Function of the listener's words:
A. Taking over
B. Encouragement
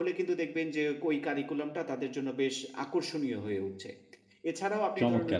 B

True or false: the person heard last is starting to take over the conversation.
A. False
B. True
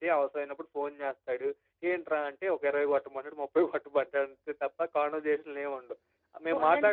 B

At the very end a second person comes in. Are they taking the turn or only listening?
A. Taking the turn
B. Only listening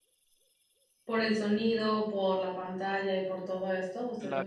A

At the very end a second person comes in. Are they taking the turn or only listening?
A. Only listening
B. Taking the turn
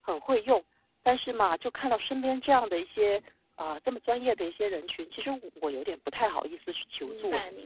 B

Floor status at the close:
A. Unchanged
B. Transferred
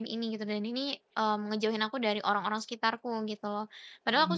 A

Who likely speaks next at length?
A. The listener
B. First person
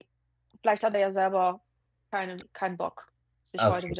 A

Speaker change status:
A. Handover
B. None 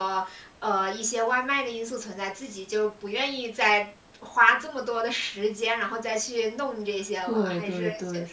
A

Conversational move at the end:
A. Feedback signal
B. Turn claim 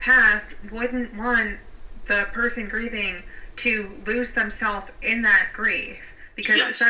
A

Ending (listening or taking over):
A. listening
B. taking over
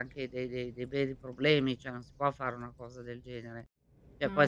A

